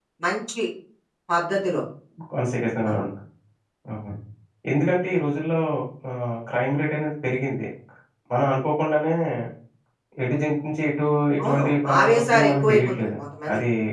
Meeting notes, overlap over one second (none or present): present